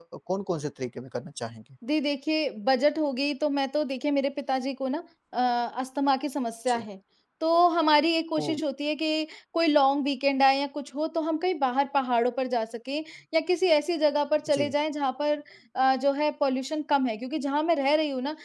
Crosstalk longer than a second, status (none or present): none